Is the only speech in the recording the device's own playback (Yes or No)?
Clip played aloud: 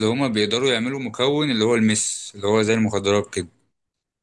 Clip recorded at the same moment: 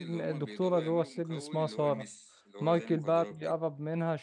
No